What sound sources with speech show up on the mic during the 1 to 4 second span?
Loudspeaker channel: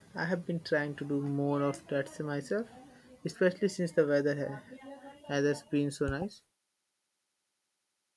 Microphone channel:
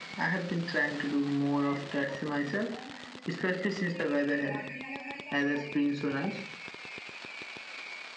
echo only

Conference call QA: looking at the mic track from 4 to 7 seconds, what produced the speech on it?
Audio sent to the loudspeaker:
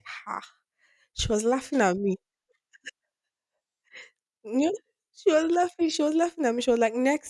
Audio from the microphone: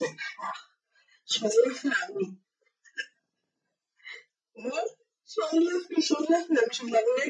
echo only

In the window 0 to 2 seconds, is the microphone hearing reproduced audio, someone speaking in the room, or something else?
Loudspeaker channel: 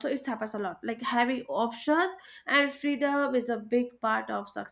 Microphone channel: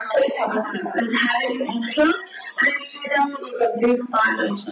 echo only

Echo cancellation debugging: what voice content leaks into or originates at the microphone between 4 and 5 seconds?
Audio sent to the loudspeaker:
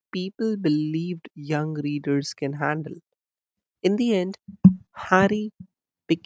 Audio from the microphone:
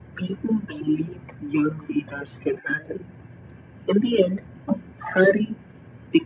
echo only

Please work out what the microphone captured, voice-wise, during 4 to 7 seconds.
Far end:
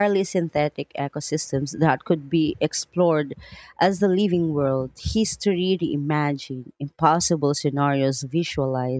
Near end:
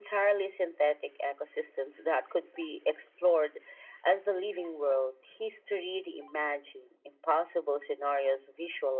echo only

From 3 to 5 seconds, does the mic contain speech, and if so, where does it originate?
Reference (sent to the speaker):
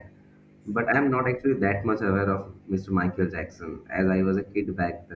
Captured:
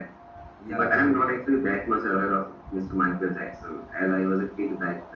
echo only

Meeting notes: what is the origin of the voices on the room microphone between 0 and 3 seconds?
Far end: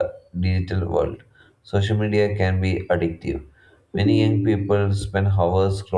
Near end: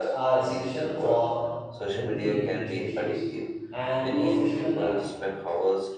both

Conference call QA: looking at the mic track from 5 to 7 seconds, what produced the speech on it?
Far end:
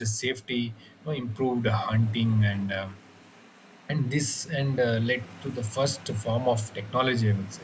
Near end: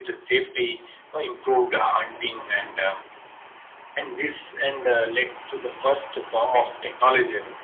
echo only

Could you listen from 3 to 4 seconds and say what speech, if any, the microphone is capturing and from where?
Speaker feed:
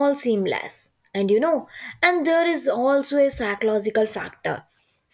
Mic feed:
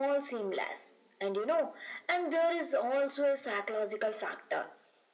echo only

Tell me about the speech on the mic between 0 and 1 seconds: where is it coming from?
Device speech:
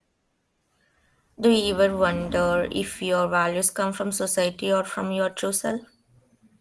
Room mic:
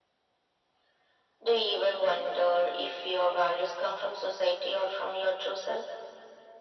neither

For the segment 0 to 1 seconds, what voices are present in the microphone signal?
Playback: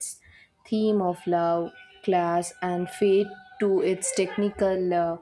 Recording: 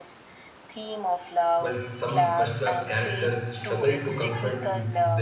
echo only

